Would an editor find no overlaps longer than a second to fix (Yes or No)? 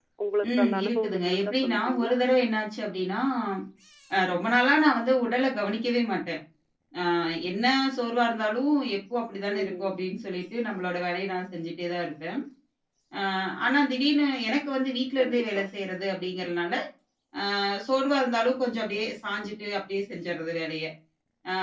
No